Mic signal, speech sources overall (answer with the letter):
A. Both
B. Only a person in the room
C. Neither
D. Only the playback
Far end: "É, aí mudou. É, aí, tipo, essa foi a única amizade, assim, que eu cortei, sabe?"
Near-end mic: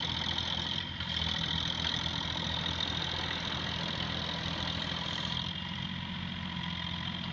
C